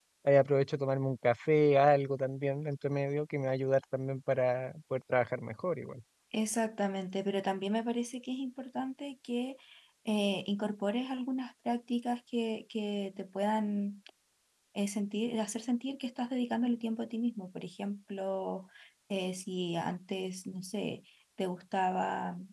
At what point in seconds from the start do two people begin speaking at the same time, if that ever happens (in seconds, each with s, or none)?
none